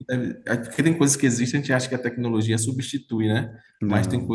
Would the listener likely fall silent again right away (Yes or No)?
Yes